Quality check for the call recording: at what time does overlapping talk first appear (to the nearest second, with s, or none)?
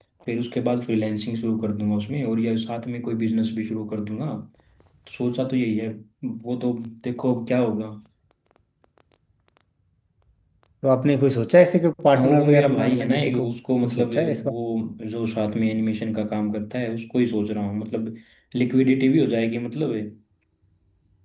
12 s